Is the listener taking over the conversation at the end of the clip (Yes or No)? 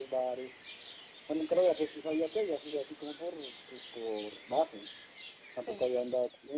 No